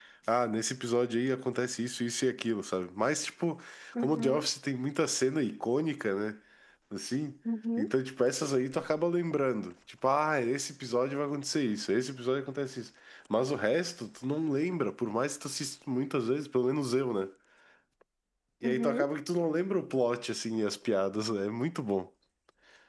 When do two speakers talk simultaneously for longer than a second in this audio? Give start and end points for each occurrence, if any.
none

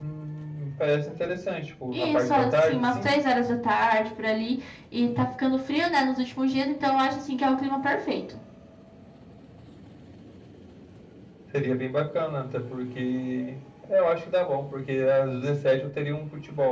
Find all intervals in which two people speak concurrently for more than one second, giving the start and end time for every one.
1.9-3.1

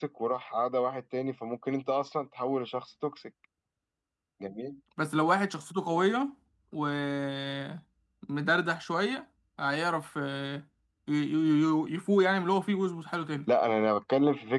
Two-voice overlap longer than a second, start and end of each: none

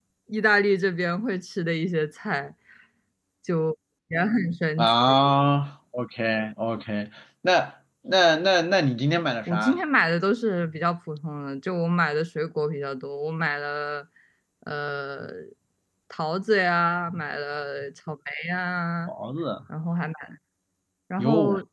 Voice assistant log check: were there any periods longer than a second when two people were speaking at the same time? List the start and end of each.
none

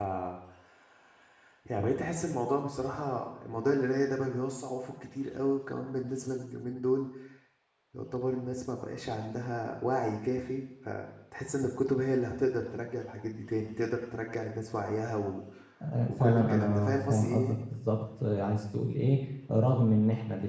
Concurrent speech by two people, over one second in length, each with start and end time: 16.1-17.6

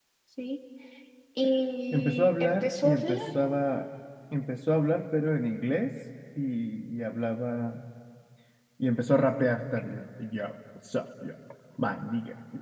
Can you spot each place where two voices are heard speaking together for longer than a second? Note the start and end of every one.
1.9-3.1

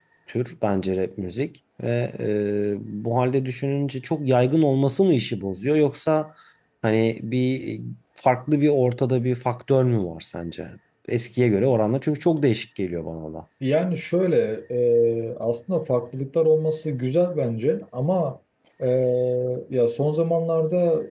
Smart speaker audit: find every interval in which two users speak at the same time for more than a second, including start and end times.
none

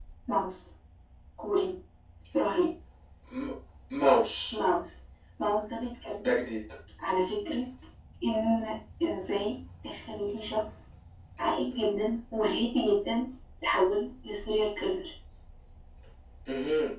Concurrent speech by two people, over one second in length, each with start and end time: none

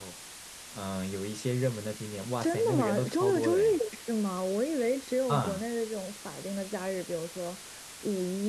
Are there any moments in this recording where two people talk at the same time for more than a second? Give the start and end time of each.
2.4-3.8

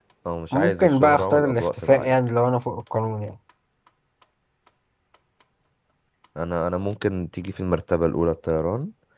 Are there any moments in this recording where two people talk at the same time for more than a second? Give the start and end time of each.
0.5-2.1

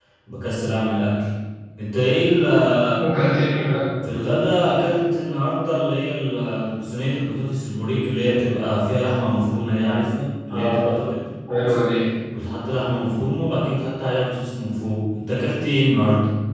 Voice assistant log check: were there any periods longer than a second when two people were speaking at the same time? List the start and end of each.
none

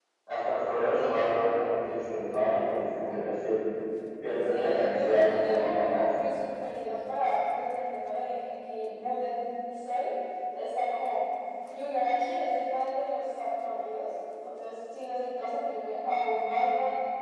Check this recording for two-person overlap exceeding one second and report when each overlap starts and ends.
4.4-6.1

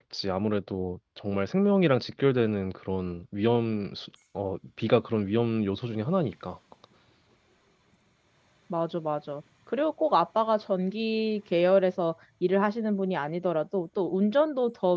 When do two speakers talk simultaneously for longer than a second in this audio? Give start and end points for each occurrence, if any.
none

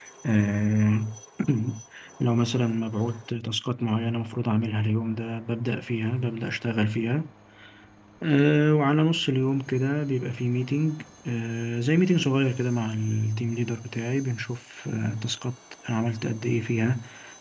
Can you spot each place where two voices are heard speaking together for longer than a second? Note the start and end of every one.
none

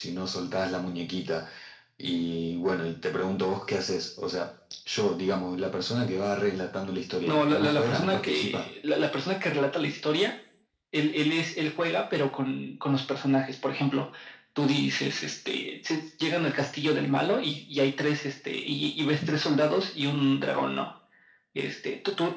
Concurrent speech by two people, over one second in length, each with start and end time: 7.2-8.7

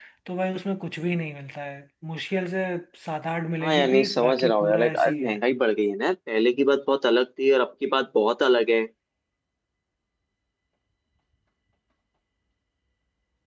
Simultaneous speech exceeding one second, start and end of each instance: 3.6-5.4

